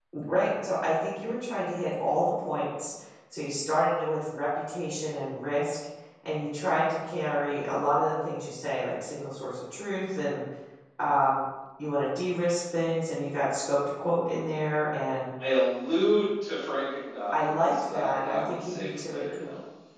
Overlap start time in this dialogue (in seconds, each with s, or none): 17.3 s